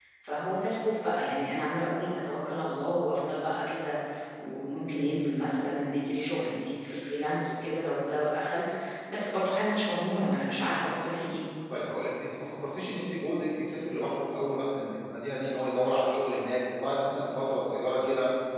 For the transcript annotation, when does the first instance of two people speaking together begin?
none

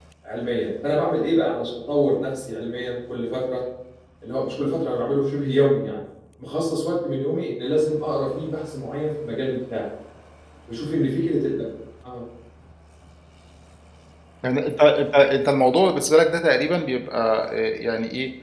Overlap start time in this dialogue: none

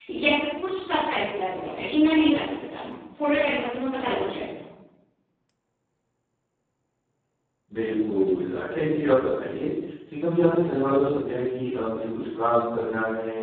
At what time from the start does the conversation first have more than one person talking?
none

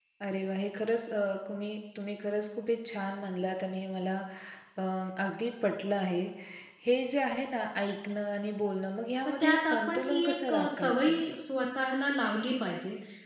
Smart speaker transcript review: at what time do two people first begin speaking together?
9.4 s

